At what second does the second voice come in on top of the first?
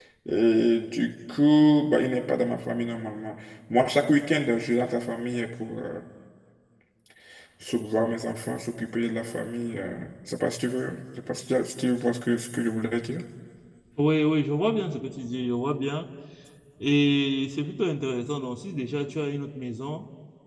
none

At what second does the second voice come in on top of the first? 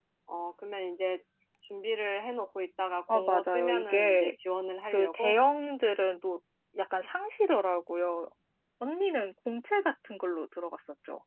3.1 s

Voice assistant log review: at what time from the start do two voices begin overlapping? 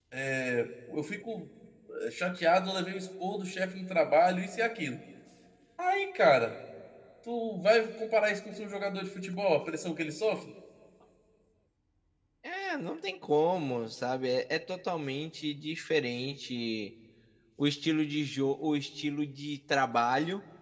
none

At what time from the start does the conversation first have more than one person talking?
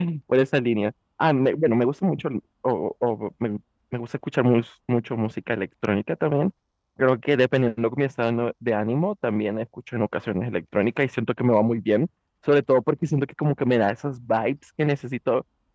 none

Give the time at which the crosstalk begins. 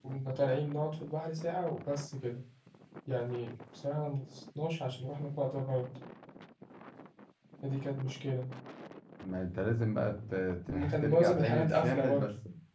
10.7 s

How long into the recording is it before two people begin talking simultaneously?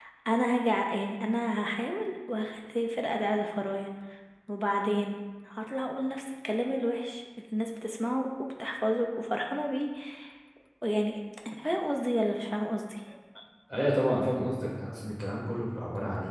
none

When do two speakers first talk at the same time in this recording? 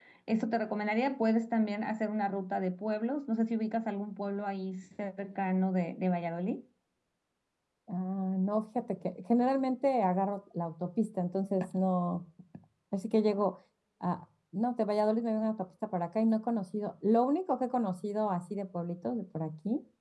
none

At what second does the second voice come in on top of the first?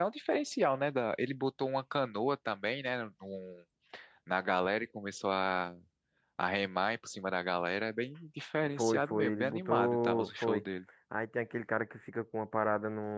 8.8 s

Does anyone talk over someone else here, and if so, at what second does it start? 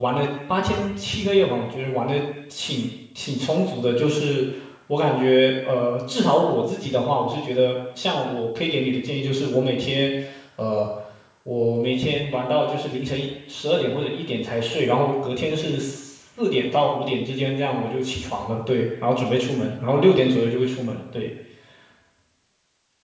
none

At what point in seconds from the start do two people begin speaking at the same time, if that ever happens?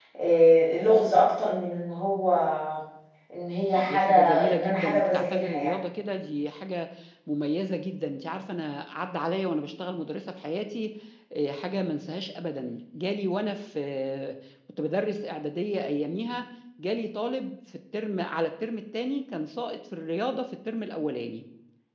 3.8 s

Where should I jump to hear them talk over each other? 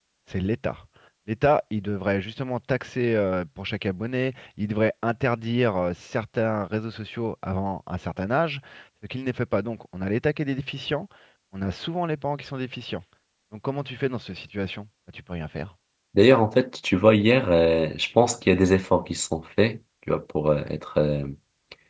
none

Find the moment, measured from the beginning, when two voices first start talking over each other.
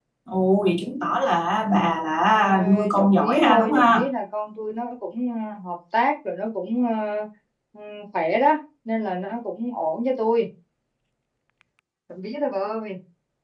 2.4 s

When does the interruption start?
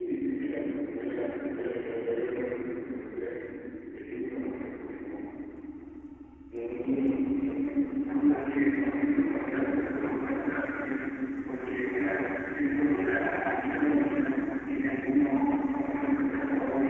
none

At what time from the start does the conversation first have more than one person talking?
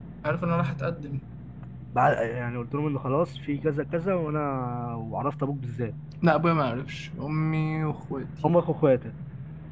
none

